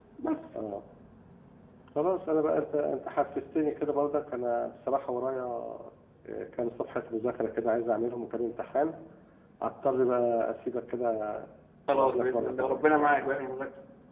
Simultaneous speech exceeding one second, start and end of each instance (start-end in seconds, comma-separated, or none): 11.9-13.3